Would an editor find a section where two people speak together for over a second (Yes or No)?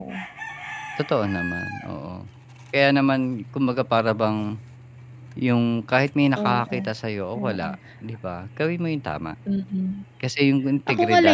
No